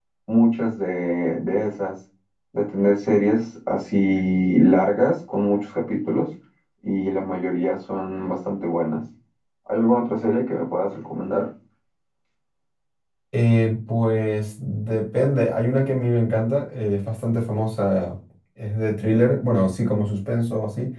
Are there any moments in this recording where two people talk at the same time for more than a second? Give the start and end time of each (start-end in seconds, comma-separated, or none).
none